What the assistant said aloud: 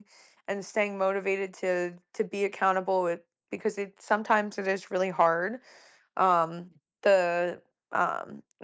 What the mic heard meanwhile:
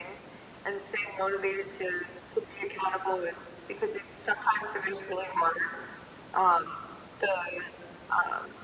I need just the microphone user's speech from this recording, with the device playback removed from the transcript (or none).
none